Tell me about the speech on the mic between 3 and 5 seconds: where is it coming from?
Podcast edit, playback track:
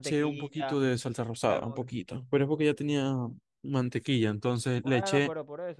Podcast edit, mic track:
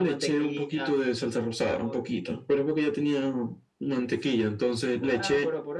echo only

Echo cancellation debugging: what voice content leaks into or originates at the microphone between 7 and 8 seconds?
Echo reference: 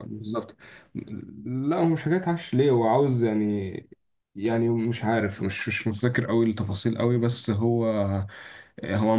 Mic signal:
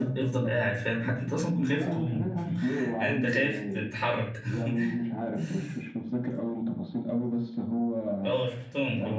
echo only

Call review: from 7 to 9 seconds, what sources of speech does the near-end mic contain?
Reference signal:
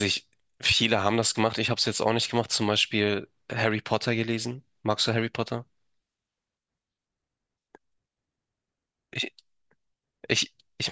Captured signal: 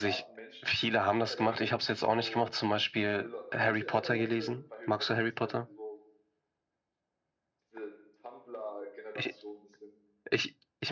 user only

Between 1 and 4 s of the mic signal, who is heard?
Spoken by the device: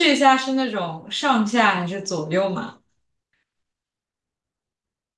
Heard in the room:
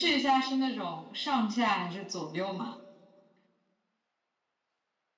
echo only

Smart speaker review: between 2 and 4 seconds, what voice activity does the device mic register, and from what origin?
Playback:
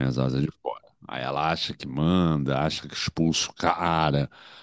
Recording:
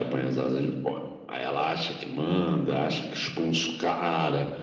echo only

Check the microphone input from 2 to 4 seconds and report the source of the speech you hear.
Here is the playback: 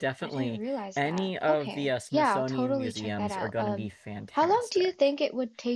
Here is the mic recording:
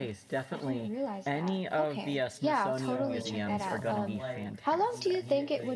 both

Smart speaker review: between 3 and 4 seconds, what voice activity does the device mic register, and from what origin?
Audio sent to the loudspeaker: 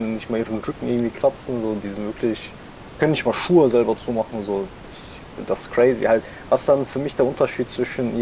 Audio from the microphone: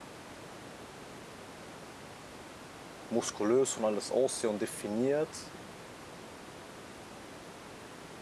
user only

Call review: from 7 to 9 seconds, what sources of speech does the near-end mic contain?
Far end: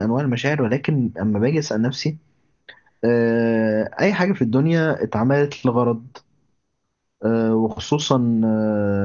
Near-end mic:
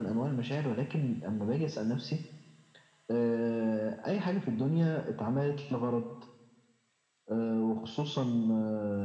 echo only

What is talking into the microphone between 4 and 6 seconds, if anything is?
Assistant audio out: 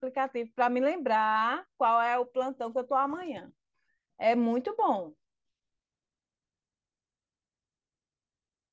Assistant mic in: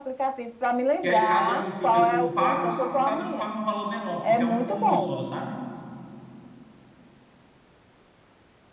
both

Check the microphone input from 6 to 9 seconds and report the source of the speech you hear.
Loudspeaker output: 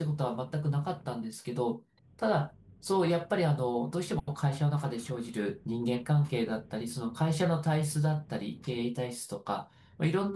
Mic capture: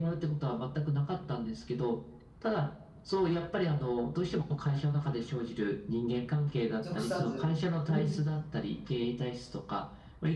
both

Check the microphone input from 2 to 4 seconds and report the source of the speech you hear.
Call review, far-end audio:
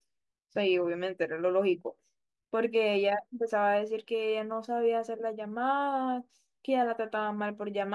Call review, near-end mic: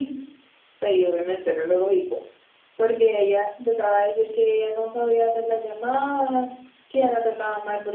echo only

